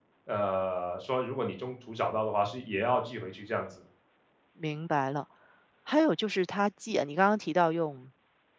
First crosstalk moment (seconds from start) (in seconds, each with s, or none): none